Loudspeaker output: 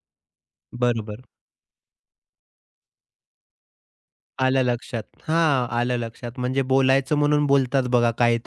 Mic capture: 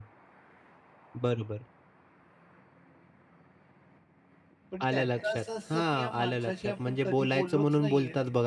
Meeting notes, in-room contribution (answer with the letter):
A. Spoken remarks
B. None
A